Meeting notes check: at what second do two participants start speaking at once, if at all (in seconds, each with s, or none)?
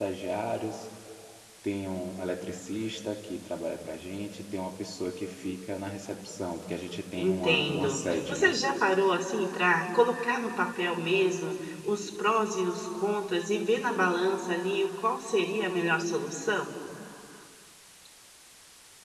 7.2 s